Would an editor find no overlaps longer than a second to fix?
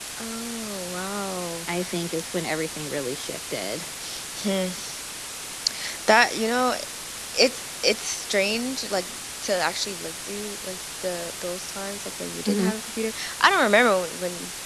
Yes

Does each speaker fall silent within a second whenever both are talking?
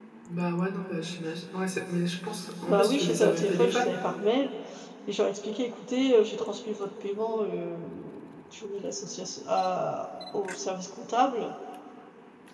No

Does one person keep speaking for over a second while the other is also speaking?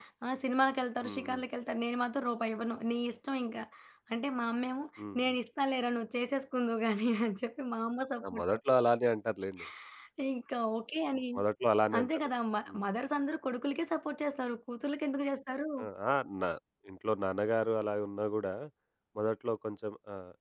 No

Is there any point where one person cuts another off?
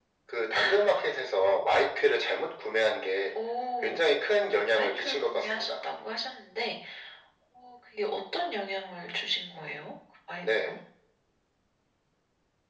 Yes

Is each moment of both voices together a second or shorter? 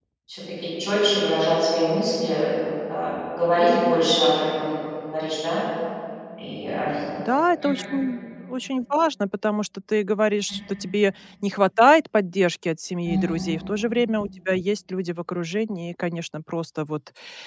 Yes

